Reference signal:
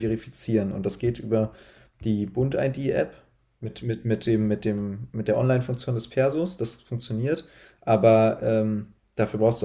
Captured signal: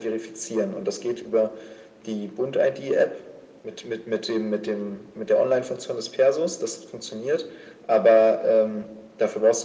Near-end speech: none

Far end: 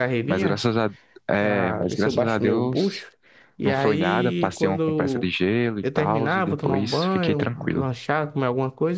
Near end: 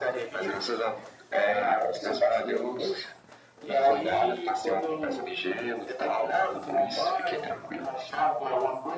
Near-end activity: none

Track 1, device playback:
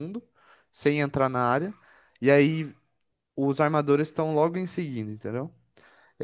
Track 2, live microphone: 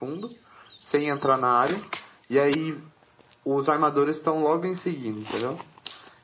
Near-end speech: none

